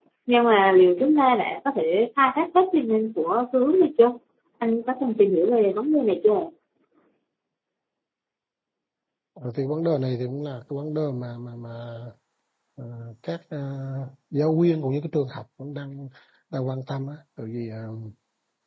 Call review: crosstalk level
none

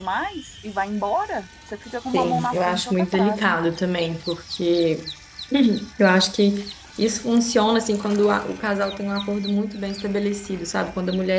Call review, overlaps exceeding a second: present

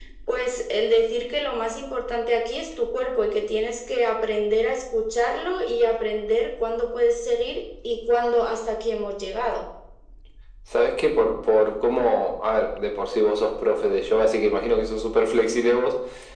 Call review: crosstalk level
none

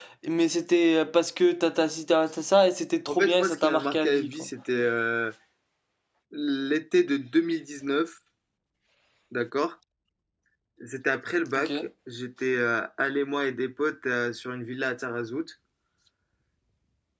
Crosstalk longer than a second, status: present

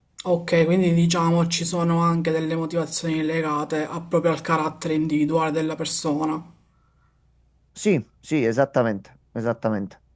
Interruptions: none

